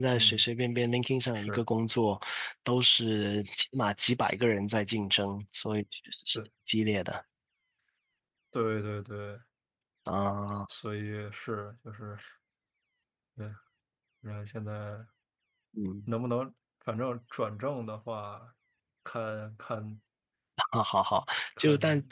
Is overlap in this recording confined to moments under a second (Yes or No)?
Yes